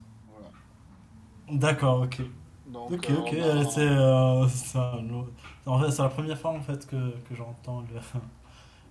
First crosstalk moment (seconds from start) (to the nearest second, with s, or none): 3 s